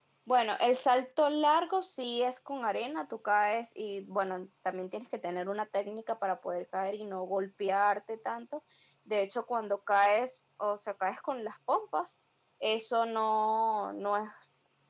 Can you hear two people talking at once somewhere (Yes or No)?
No